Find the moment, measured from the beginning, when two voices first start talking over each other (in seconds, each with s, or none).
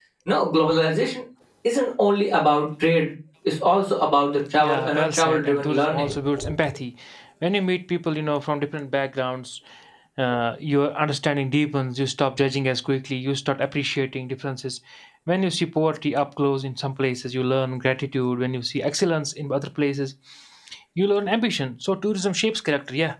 4.6 s